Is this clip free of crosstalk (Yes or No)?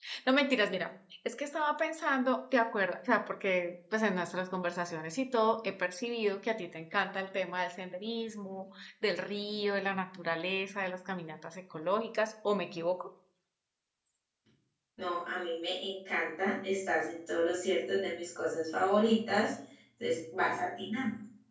Yes